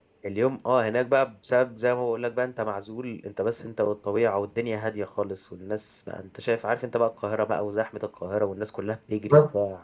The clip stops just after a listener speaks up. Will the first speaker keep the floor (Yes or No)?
Yes